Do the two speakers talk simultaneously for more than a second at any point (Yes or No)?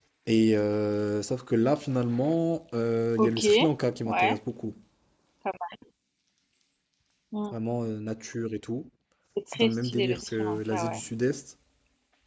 Yes